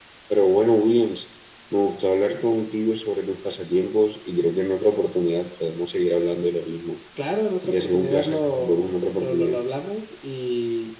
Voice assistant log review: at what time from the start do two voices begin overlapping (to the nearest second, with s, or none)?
8 s